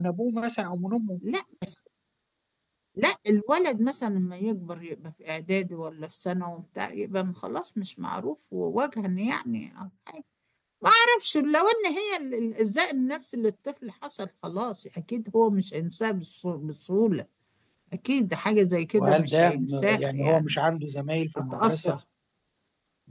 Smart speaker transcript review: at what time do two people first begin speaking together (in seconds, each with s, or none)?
19.0 s